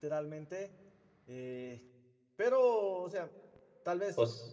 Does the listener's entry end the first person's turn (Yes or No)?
No